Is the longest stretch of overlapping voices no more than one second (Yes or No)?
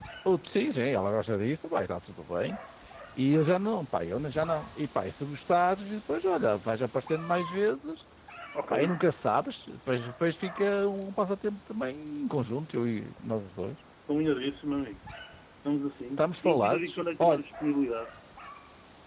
No